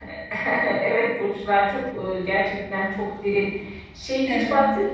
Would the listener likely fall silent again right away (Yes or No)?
Yes